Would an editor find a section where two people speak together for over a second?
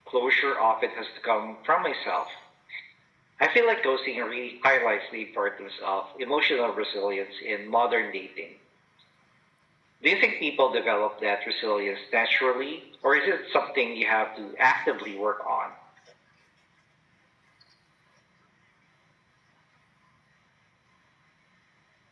No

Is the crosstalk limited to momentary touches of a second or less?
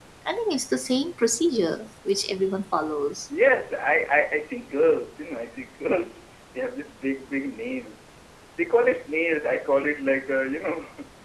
Yes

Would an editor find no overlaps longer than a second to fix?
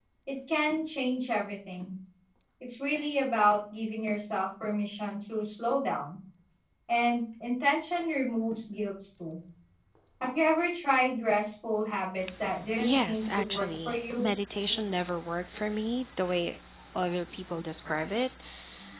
No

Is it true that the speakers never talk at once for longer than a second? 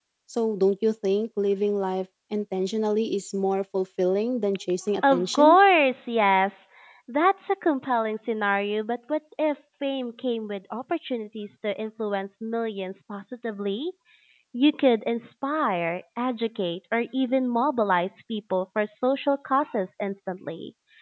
Yes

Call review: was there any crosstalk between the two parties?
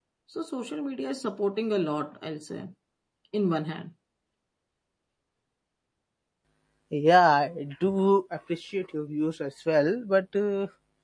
No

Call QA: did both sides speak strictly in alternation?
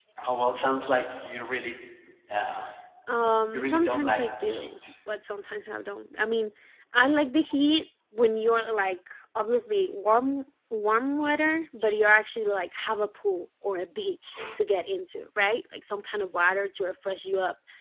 No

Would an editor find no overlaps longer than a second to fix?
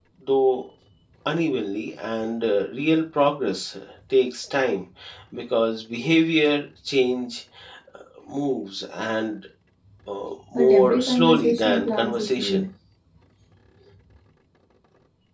No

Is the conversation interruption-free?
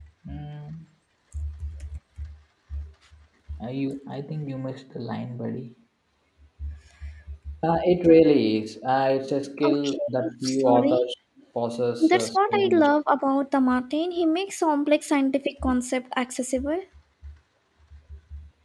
No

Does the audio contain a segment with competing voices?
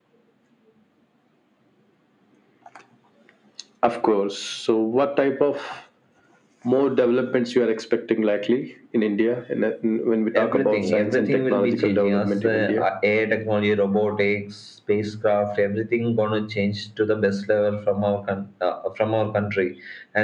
Yes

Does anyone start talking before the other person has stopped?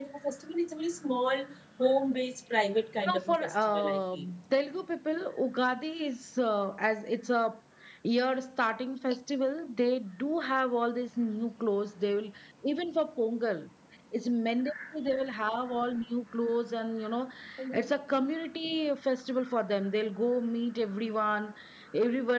Yes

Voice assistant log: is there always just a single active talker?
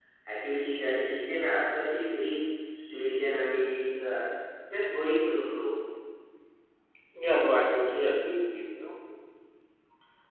Yes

